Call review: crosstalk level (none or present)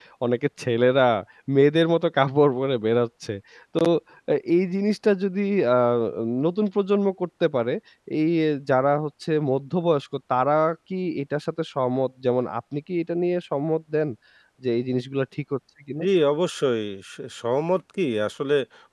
none